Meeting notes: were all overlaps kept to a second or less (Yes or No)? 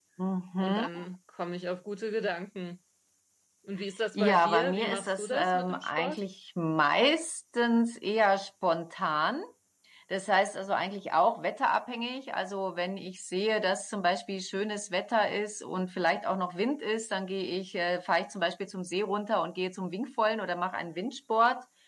No